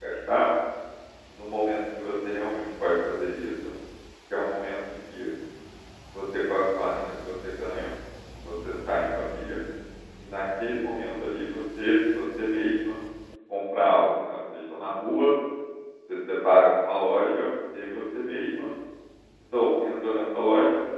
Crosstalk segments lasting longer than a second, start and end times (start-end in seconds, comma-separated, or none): none